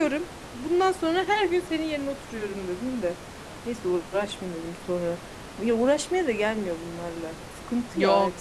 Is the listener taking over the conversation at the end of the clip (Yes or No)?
Yes